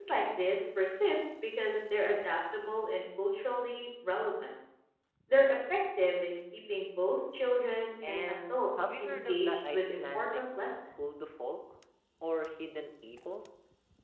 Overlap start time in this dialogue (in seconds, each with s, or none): 8.1 s